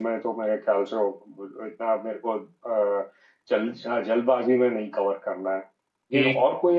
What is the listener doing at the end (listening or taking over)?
listening